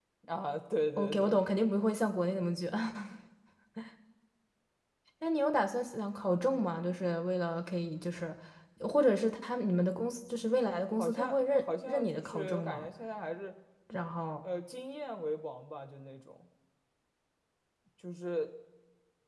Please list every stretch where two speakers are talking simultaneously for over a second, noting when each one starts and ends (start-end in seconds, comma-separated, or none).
11.0-12.9